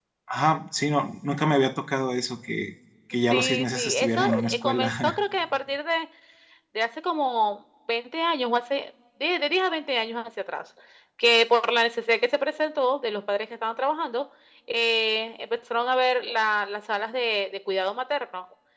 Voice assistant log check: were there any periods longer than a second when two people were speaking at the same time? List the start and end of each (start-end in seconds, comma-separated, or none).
3.3-5.2